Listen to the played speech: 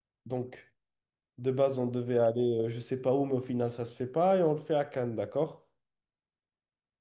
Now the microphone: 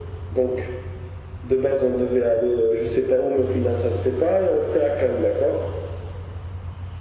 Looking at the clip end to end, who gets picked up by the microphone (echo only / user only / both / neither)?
echo only